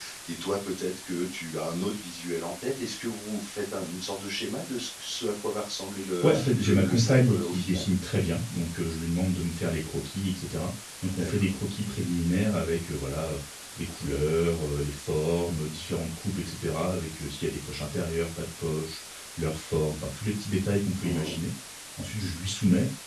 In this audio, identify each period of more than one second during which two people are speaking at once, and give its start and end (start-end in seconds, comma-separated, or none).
6.2-7.9